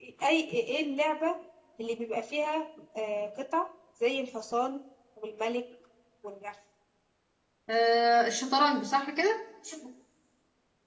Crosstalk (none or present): none